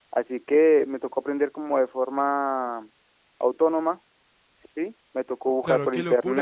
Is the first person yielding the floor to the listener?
Yes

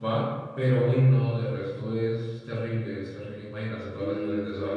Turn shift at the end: Yes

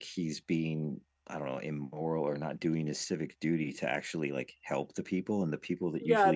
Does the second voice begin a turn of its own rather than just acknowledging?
Yes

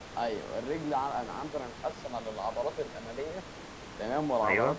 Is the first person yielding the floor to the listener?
No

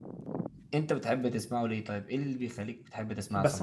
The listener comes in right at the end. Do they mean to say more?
Yes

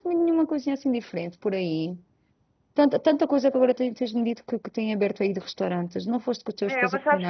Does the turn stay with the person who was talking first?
No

